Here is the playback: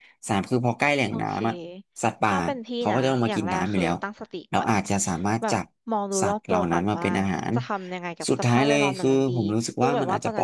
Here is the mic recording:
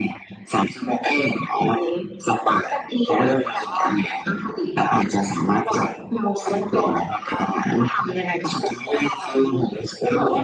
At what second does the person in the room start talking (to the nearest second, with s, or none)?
none